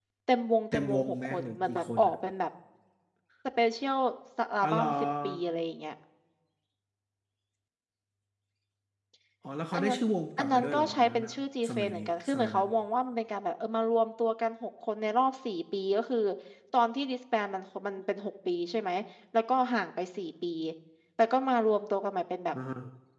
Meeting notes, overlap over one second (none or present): present